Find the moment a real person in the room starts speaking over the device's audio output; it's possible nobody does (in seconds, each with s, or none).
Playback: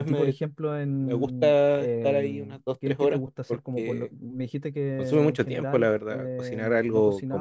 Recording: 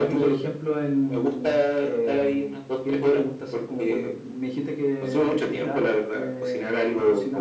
none